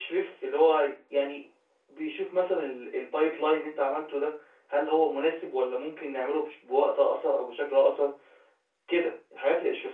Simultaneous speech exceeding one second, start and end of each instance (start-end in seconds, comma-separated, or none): none